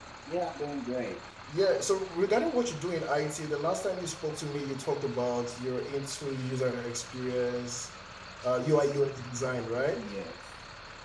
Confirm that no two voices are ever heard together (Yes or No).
Yes